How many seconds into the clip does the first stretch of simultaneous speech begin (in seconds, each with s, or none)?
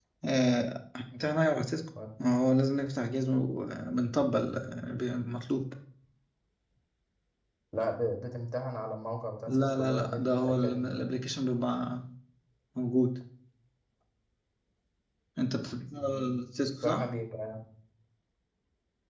9.5 s